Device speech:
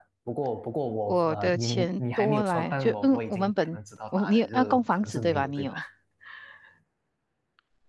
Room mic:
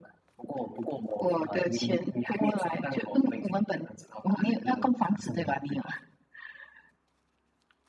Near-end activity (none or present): none